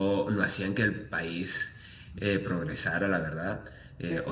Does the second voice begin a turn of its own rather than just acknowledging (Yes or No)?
No